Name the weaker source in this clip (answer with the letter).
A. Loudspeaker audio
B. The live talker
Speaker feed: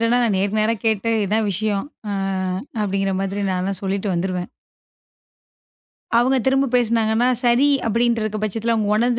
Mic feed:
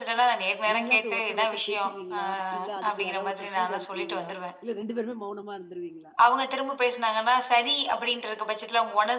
B